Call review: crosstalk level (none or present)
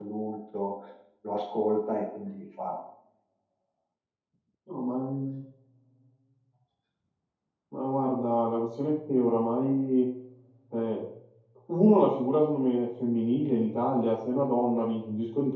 none